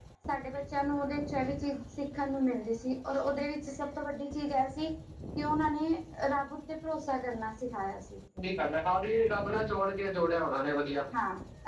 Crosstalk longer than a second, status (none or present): none